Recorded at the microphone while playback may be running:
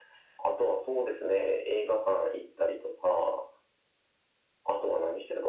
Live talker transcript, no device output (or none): none